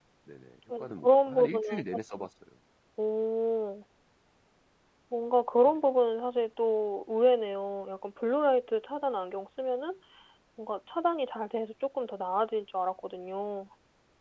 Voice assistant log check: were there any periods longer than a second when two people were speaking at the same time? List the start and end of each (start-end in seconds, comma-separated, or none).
0.8-2.3